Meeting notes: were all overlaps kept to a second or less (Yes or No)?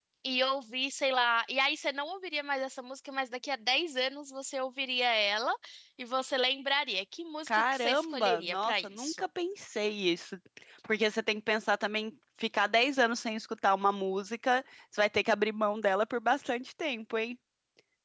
No